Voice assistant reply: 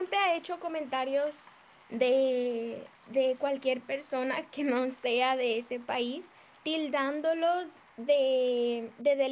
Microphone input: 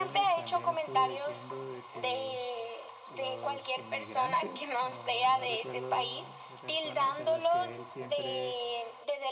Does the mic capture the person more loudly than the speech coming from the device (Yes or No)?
No